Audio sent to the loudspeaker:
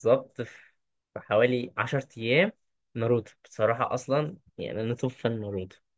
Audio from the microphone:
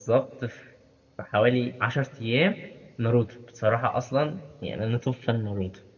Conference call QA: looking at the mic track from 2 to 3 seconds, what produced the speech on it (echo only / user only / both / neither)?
echo only